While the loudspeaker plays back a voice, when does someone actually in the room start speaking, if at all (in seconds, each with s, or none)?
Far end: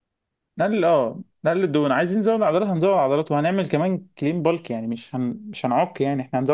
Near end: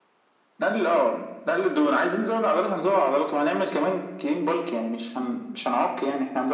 none